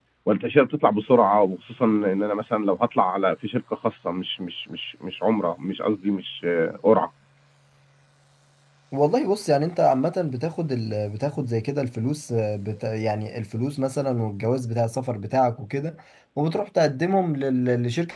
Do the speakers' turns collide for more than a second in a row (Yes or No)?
No